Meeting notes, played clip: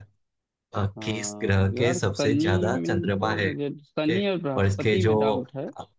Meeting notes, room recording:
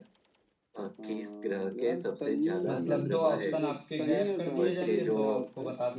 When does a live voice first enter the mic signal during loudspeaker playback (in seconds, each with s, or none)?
2.7 s